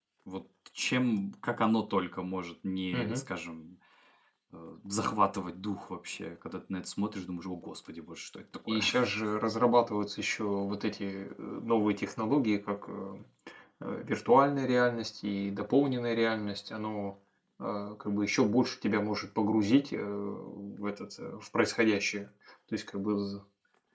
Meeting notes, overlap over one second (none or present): none